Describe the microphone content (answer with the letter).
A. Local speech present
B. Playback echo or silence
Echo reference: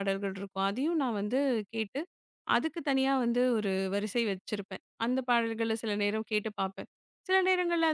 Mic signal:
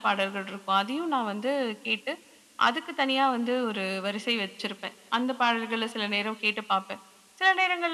B